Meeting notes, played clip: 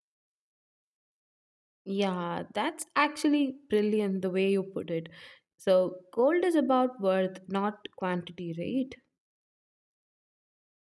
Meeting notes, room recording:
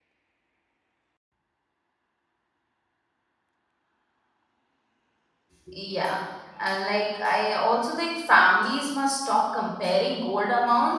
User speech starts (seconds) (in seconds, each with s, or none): 5.6 s